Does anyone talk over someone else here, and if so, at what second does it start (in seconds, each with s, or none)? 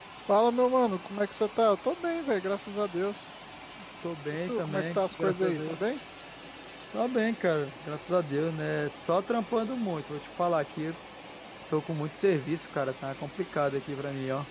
4.5 s